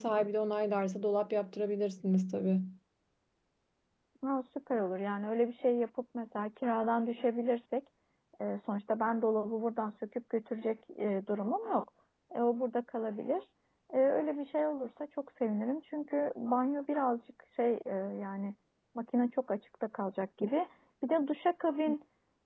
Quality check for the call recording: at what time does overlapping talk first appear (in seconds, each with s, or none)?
none